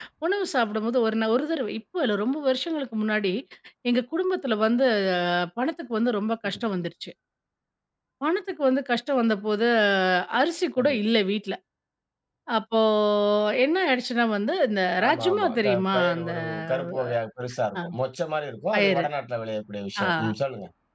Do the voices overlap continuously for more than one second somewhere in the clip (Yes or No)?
Yes